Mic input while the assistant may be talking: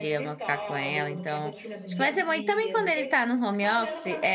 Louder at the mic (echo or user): user